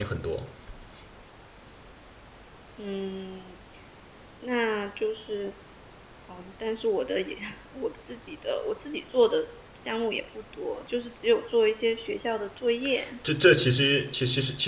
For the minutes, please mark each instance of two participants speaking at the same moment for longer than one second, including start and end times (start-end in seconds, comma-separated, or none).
none